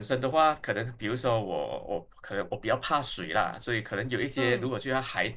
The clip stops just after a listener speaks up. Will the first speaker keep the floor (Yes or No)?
Yes